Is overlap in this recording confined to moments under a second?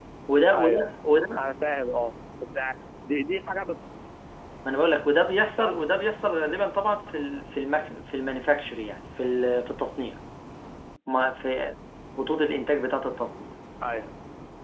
Yes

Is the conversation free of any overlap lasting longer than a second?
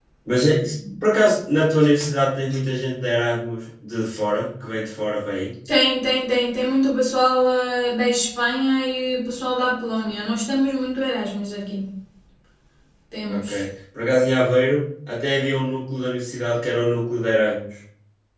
Yes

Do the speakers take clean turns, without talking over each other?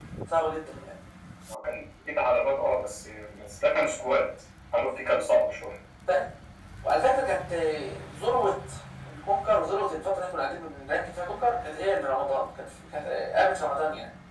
Yes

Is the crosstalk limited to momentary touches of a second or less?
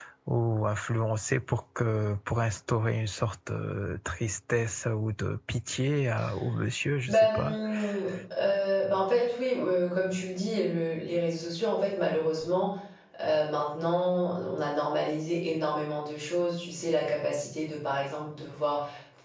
Yes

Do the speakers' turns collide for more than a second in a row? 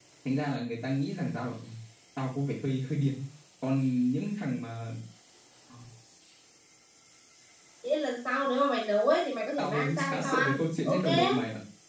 Yes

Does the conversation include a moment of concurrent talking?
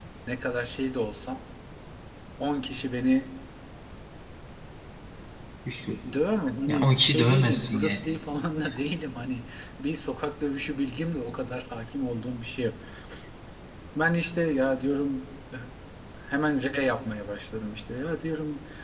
Yes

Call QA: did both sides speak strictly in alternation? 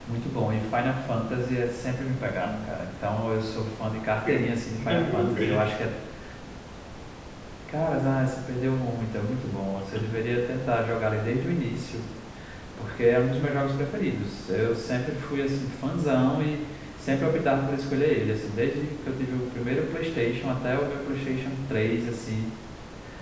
No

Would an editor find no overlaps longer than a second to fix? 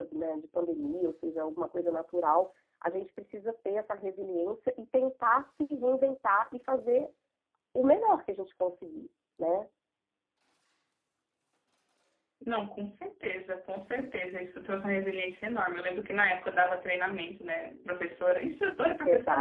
Yes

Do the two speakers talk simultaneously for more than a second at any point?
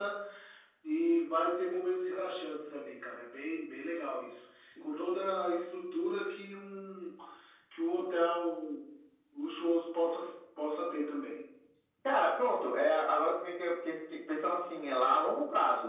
No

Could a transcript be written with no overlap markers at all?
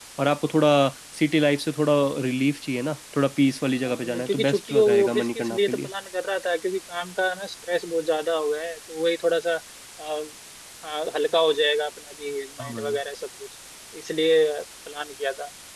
No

